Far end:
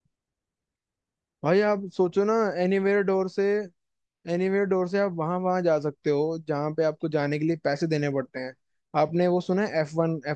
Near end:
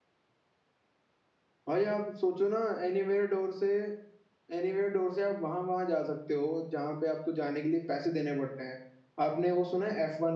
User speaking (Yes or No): No